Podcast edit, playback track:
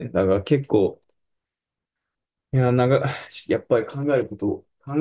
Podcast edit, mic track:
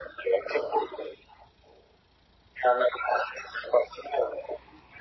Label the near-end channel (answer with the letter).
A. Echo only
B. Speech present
A